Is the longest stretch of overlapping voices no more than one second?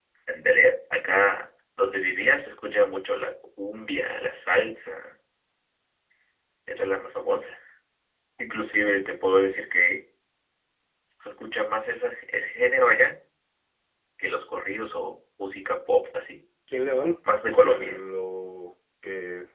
Yes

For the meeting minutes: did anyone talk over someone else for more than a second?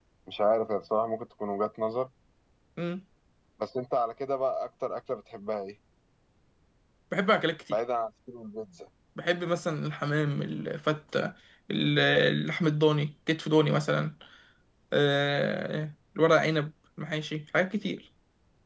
No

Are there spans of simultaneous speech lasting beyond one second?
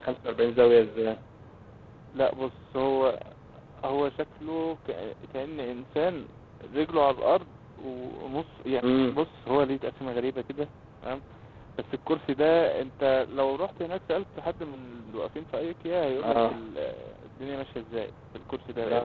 No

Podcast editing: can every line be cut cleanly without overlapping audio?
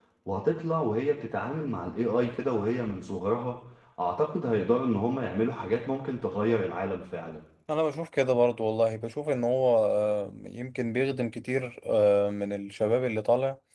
Yes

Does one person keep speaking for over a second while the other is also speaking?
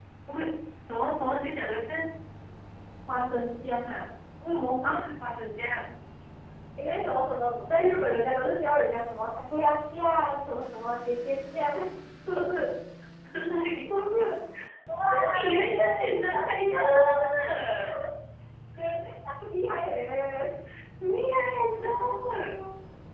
Yes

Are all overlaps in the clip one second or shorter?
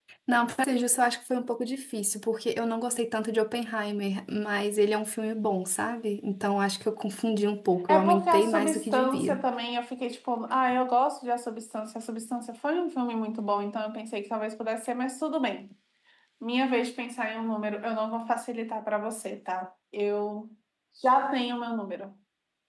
No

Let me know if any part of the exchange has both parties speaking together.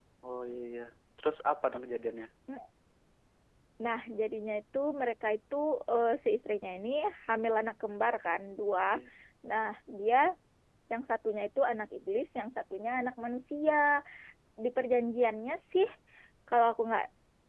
No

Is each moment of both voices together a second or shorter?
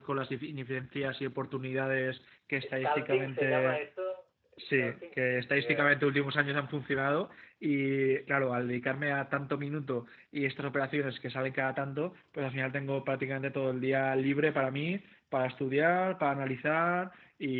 No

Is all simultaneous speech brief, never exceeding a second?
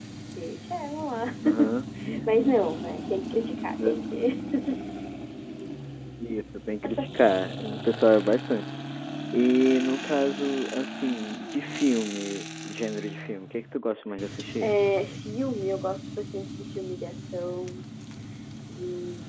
Yes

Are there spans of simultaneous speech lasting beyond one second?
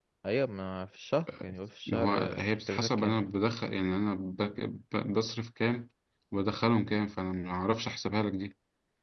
Yes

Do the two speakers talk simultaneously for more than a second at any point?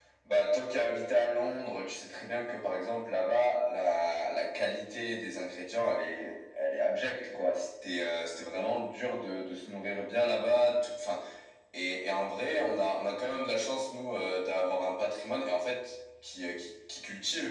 No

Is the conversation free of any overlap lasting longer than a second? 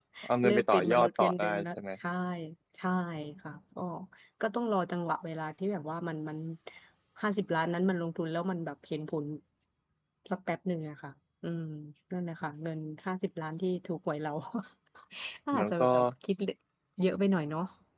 No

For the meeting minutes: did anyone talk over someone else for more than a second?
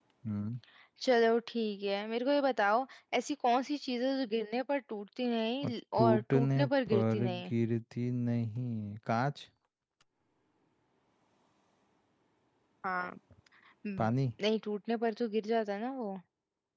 Yes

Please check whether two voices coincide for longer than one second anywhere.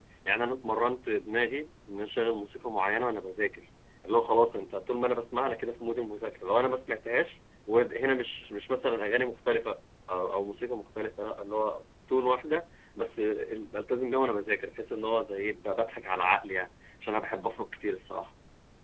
No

